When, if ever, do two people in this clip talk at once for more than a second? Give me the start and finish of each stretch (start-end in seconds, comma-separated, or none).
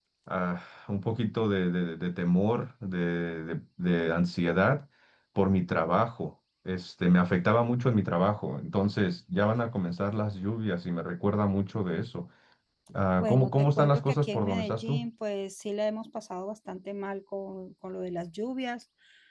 13.2-15.1